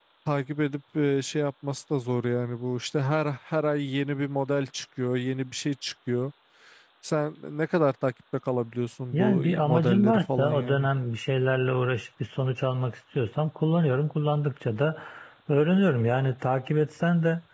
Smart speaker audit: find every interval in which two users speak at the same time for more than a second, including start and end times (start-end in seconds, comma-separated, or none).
9.1-10.9